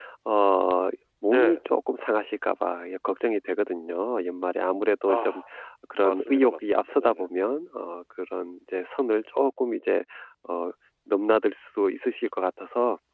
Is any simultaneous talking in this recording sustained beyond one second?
Yes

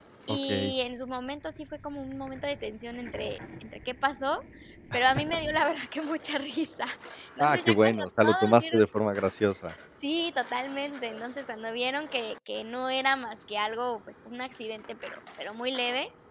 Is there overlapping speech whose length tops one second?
Yes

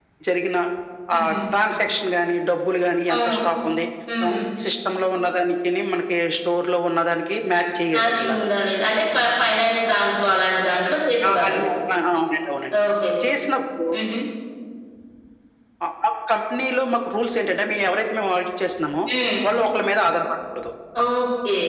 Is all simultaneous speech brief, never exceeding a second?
Yes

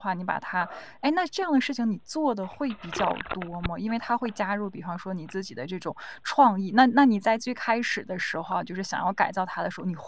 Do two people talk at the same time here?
No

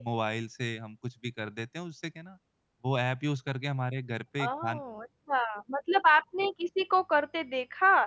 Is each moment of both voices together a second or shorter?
Yes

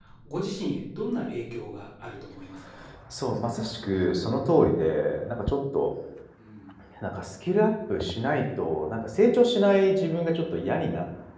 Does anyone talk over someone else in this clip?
No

